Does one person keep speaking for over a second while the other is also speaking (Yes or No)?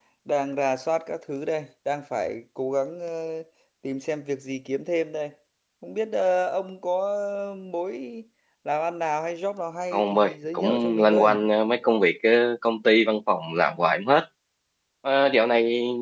Yes